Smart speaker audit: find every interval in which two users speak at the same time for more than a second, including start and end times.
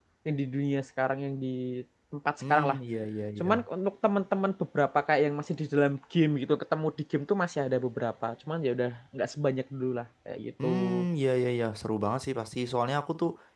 none

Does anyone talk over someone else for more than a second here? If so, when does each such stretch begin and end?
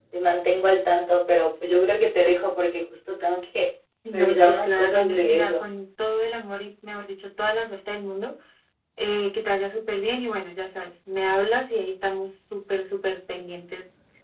4.1-5.7

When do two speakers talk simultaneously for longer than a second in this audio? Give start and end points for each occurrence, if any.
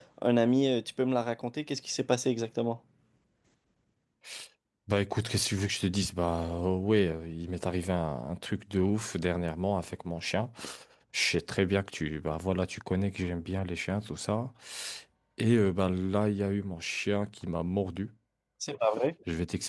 none

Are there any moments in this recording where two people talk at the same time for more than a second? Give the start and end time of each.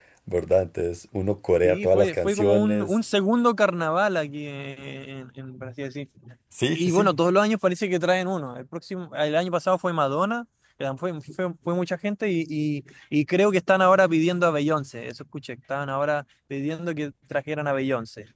1.6-3.0

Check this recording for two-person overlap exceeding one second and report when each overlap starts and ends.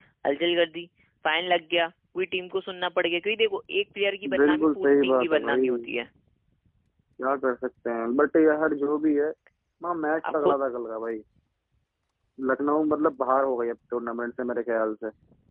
4.4-5.6

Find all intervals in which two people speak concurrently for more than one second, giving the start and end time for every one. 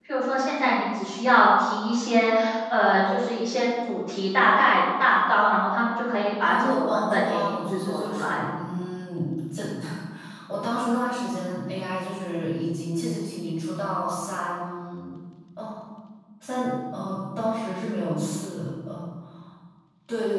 6.4-8.4

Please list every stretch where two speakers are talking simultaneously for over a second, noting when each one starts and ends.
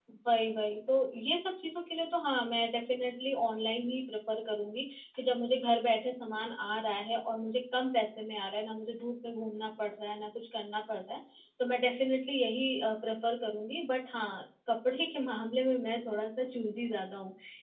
none

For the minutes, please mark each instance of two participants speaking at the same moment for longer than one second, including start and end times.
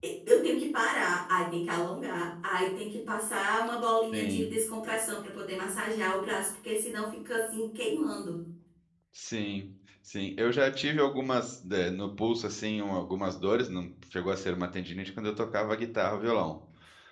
none

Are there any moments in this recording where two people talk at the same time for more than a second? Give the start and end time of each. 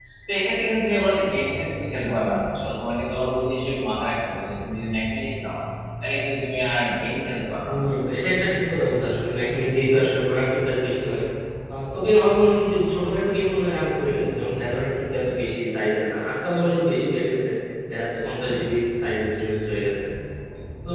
none

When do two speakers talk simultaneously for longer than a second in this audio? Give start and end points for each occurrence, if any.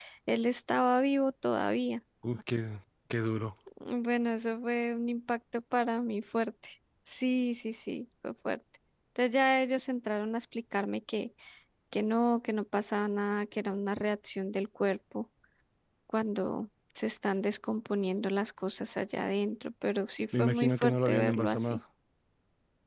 20.4-21.8

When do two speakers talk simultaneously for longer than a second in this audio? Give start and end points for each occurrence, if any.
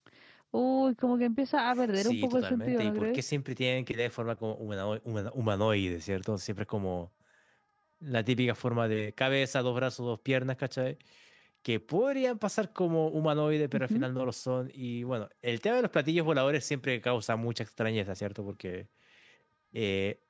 2.0-3.2

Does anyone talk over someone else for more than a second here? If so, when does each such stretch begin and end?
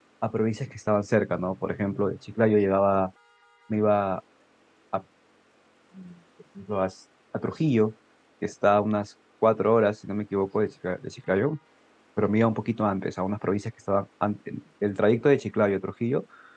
none

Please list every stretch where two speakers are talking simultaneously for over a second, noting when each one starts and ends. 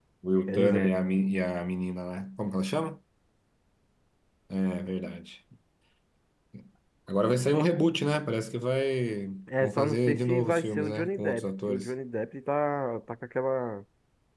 9.6-11.9

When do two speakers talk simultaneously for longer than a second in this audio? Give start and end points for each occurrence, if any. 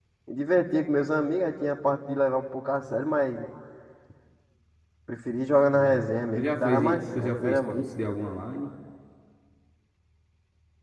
6.3-7.8

